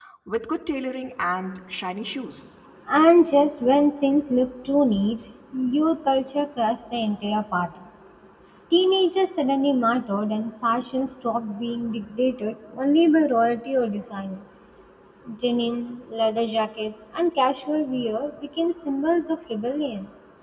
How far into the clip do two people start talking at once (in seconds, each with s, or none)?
none